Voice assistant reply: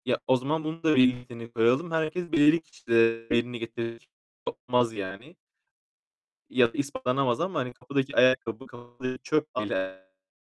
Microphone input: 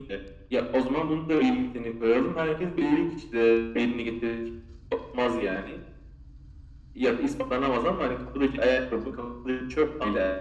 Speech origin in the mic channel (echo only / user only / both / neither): echo only